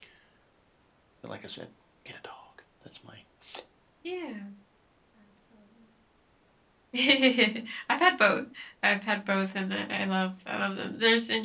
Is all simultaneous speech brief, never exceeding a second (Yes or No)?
Yes